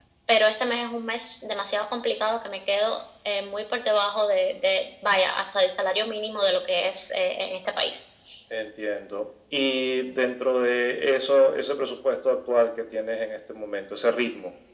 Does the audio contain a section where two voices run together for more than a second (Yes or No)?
No